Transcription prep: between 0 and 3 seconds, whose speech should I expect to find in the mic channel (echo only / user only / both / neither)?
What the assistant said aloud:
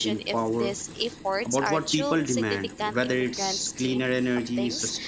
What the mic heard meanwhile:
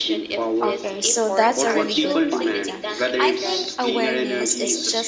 both